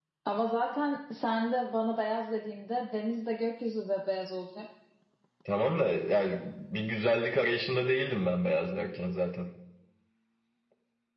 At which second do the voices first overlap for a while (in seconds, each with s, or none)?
none